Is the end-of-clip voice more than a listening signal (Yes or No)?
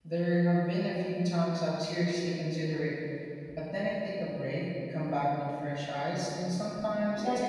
Yes